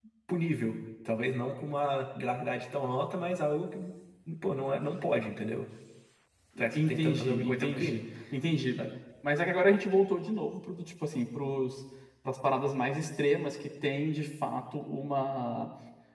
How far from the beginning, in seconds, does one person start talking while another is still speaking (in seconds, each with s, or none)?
6.6 s